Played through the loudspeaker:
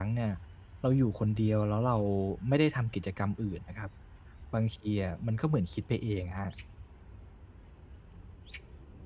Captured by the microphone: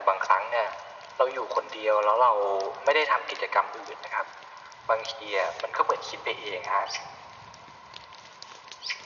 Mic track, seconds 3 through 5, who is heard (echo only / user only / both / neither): echo only